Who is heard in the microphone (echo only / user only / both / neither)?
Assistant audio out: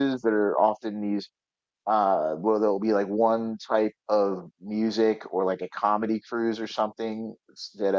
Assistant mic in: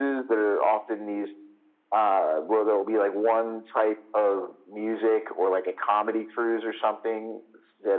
echo only